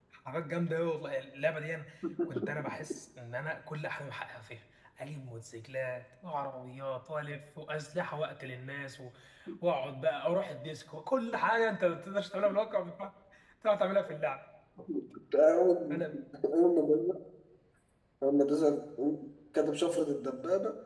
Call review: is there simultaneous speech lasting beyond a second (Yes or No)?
No